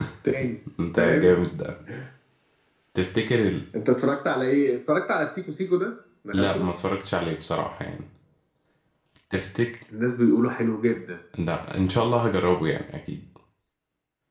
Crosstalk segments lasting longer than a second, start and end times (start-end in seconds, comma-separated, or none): none